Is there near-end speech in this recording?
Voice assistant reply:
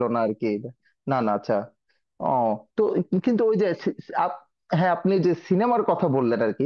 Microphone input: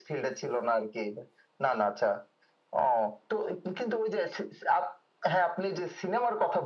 No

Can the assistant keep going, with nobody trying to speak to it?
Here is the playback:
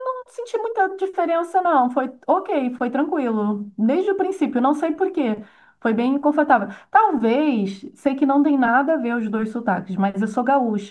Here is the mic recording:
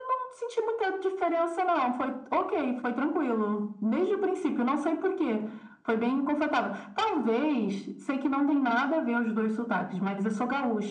Yes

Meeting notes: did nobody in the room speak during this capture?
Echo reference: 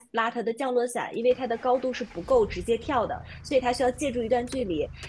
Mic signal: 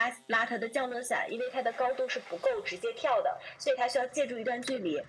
Yes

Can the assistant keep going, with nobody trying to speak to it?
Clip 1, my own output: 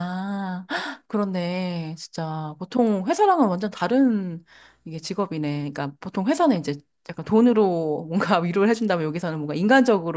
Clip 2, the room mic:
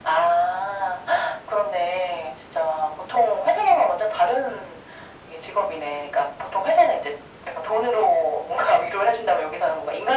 Yes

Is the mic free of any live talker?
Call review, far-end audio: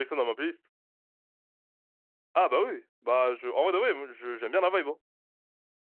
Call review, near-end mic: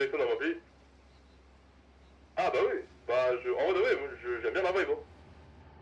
Yes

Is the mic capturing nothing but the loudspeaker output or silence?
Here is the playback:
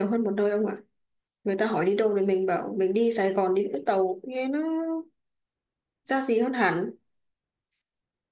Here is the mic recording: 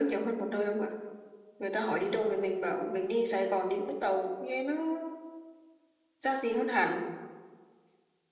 Yes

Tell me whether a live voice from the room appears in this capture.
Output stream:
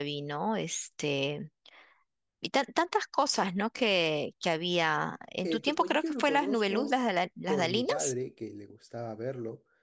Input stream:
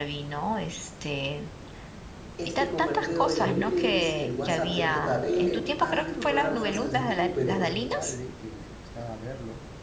Yes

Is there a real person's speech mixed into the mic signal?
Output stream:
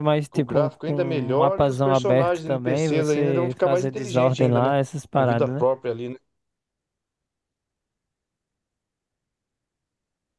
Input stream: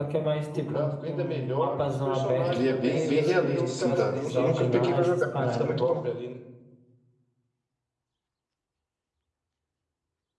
Yes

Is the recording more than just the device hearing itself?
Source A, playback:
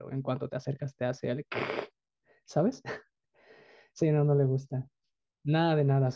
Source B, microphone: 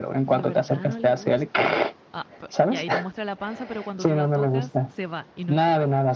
Yes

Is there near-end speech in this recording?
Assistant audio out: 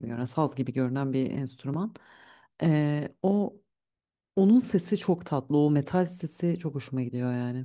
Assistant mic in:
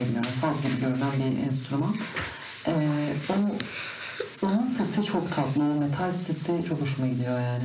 No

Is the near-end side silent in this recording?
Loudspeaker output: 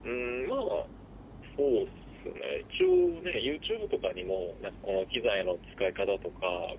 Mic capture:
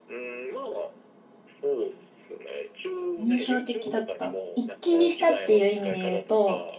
No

